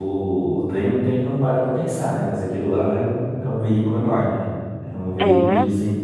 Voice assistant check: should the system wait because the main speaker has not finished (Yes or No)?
Yes